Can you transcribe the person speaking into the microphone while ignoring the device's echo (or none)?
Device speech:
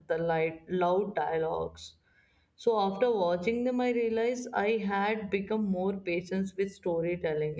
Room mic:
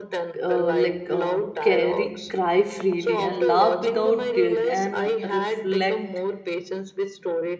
uh, like uh, carry cry freely and laugh without guilt and reflect